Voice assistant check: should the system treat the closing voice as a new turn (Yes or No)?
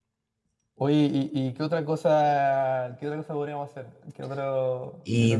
Yes